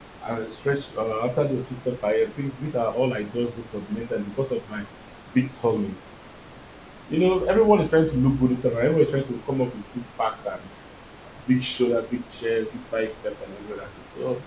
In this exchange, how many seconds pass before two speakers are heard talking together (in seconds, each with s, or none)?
none